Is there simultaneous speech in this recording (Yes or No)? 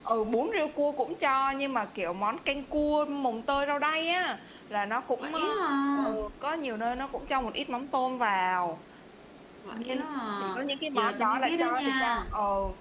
Yes